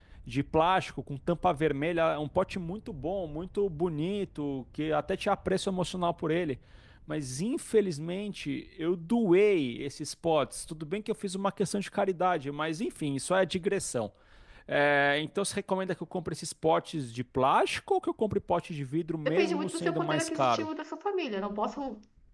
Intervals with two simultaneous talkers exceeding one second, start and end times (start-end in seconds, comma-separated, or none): 19.2-20.7